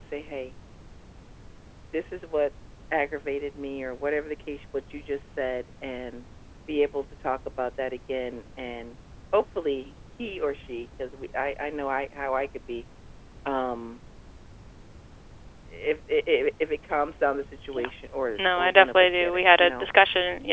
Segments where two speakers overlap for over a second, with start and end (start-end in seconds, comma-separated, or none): 18.4-19.9